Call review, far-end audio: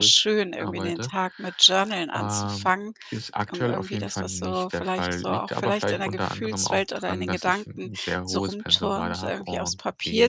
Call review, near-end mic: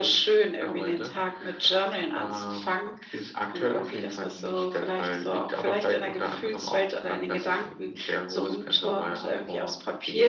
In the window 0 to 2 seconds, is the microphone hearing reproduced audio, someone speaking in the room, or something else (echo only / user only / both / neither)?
echo only